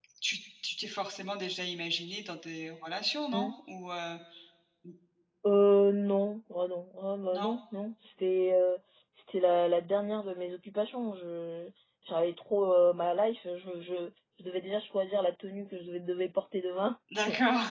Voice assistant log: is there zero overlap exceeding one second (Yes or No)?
Yes